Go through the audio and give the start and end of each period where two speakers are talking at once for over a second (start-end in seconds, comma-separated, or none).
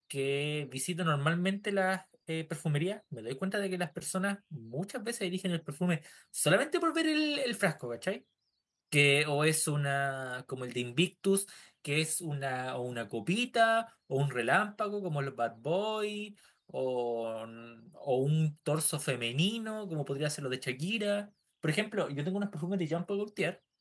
none